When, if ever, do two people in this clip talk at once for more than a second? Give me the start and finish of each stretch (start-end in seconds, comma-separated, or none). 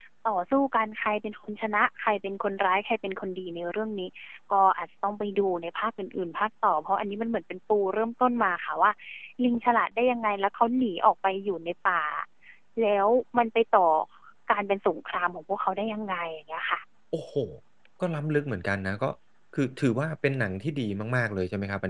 none